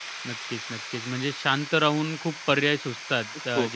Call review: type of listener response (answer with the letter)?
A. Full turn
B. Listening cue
B